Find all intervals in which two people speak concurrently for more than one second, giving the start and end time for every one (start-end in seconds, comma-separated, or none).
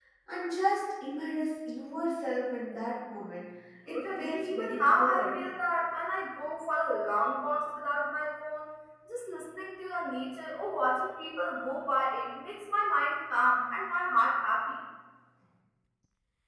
3.9-5.3